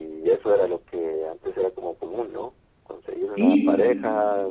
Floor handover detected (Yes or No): No